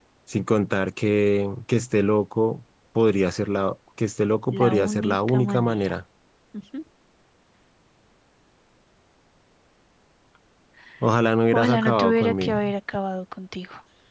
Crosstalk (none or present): present